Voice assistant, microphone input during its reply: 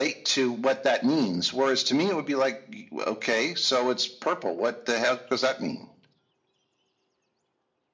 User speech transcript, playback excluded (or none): none